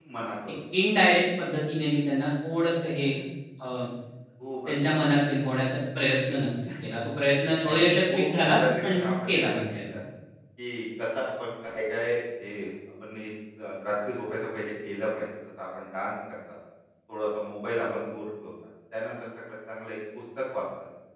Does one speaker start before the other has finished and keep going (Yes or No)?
Yes